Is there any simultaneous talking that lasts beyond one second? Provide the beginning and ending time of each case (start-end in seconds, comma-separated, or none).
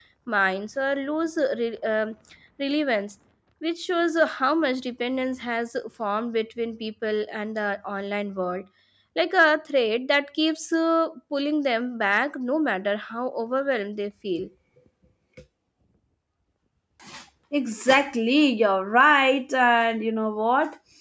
none